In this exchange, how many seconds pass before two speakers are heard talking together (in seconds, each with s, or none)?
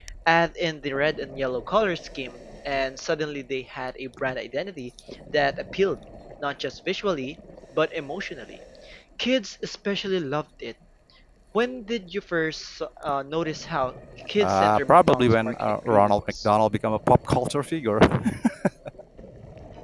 14.4 s